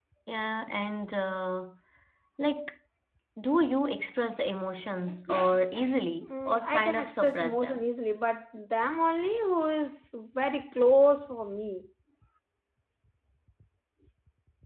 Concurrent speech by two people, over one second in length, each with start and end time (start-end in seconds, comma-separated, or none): 6.3-7.8